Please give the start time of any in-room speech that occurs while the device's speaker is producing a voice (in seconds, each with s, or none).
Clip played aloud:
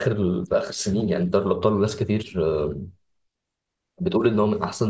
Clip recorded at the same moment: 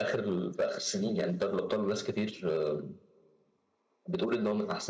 none